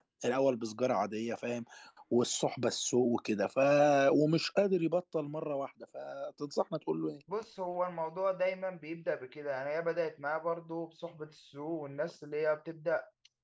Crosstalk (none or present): none